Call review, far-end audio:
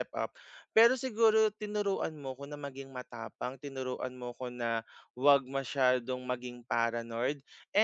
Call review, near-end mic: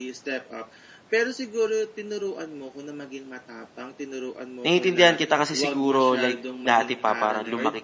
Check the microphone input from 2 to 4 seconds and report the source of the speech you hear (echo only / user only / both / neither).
echo only